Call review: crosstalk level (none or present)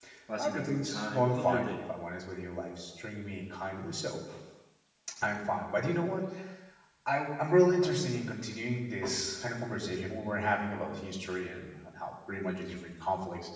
present